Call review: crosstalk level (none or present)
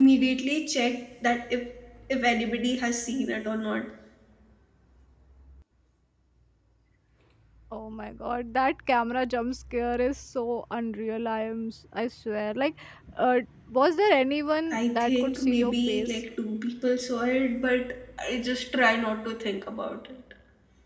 present